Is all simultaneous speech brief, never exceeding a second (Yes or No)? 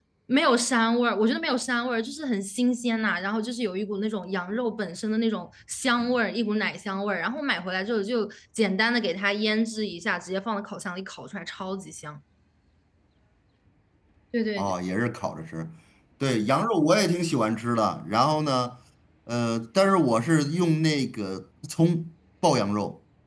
Yes